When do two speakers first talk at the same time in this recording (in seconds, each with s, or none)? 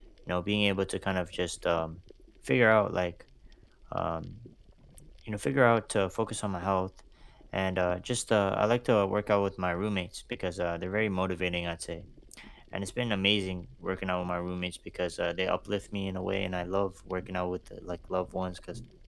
none